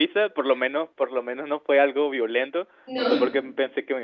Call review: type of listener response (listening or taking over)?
listening